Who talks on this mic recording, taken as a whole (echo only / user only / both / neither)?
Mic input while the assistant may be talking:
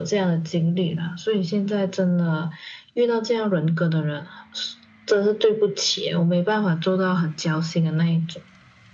echo only